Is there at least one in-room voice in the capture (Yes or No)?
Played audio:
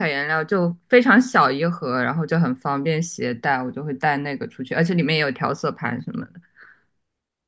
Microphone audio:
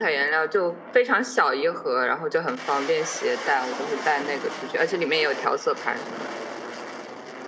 No